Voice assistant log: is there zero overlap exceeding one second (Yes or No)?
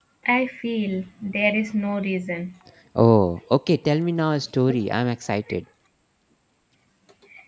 Yes